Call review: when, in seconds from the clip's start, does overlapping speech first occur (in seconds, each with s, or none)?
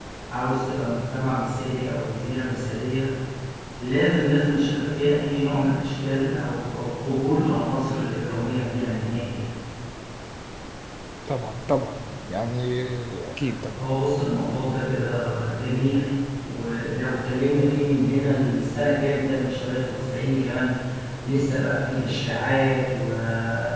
none